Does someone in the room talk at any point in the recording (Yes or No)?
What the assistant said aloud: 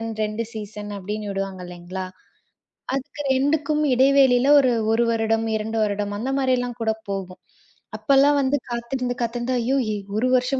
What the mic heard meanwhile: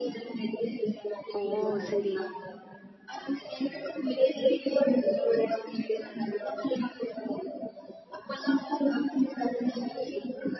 Yes